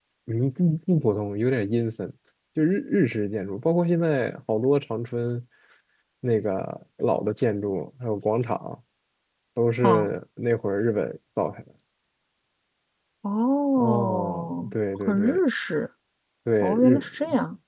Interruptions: present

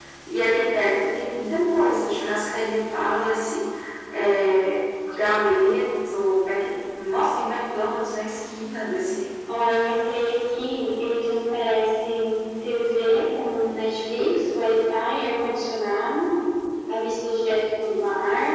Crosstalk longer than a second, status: none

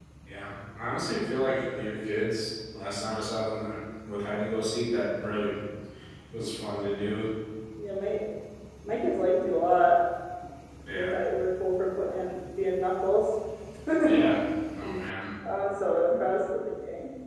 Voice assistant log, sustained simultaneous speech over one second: none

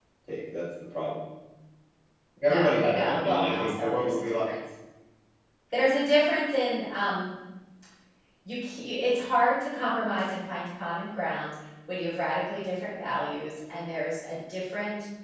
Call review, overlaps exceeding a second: present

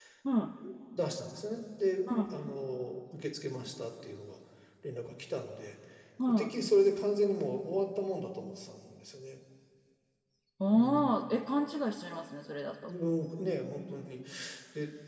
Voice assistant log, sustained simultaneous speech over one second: none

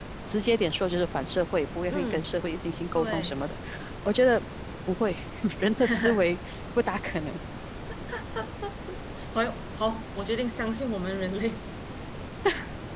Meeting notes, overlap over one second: none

